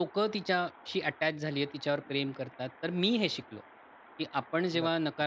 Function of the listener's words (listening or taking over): listening